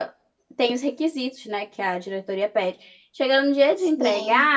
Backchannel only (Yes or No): Yes